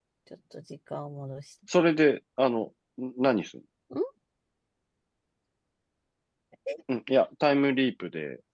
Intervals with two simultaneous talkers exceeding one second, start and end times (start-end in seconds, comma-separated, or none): none